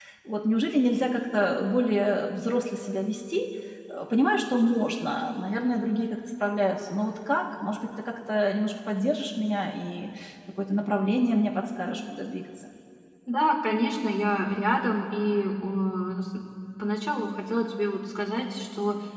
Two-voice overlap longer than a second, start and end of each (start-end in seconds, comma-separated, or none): none